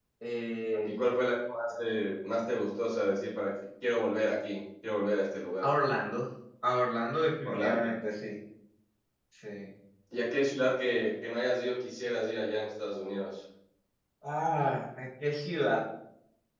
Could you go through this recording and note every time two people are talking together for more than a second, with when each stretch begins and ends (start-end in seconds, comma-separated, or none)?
none